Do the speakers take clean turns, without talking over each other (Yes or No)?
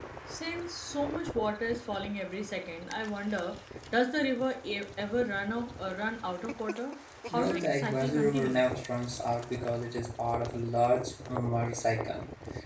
No